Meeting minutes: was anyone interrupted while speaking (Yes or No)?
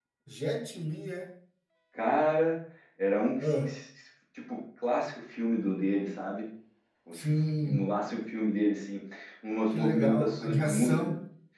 Yes